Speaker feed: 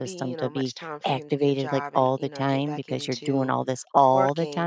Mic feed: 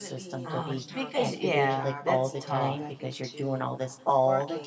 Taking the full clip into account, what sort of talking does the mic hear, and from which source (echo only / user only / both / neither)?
both